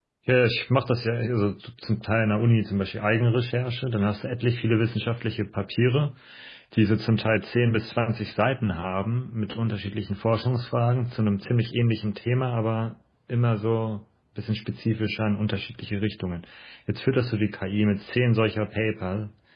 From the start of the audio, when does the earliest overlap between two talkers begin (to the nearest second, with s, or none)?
none